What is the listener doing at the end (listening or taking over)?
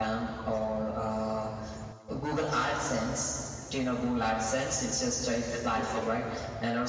listening